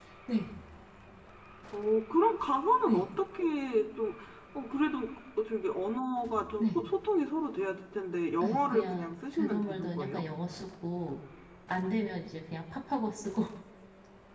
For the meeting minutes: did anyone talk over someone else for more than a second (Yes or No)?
Yes